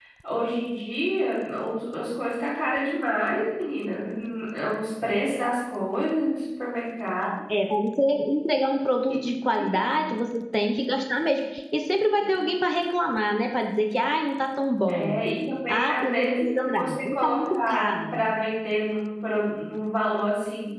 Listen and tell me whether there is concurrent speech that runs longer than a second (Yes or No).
Yes